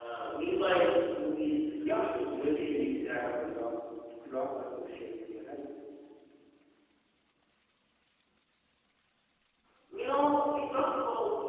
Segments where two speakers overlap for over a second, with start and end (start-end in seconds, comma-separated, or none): 1.9-3.3